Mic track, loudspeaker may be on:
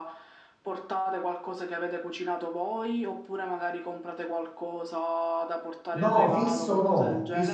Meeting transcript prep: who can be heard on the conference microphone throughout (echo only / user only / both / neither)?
both